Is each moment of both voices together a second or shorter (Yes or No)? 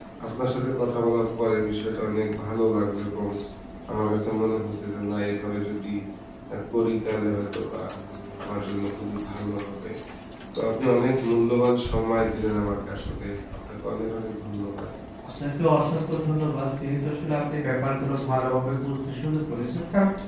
Yes